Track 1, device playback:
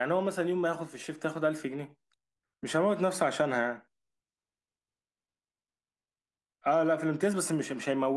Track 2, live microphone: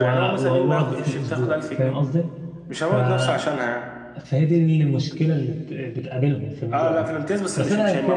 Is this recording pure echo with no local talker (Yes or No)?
No